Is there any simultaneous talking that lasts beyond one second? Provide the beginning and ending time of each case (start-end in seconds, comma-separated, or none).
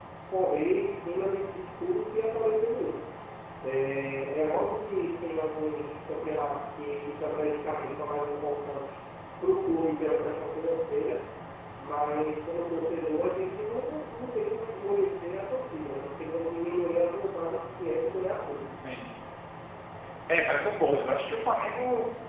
none